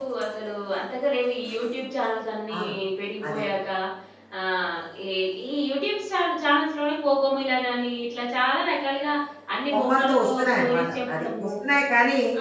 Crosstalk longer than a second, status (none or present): present